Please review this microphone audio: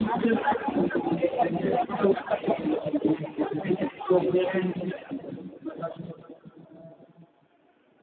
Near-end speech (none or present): none